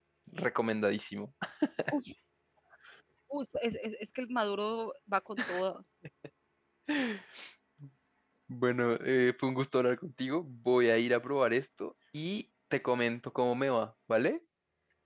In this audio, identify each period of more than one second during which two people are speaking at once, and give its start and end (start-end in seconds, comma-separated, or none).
none